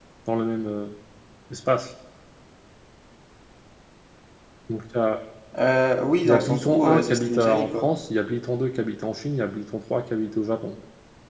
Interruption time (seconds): 6 s

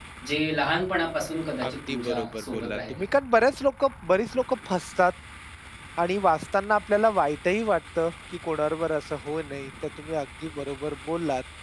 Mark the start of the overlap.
2 s

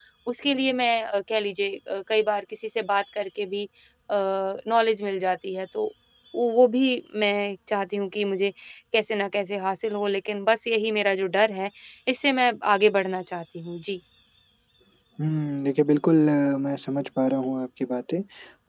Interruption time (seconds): none

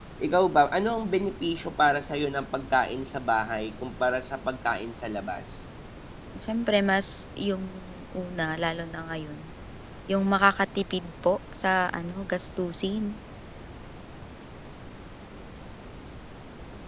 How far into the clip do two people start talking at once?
none

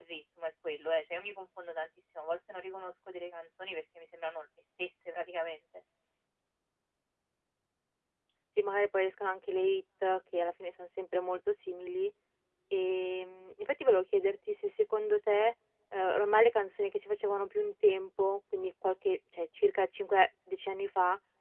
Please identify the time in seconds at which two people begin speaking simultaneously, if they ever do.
none

